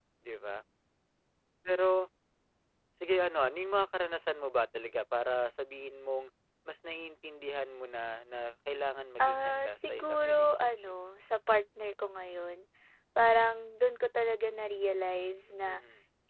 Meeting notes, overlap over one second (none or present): present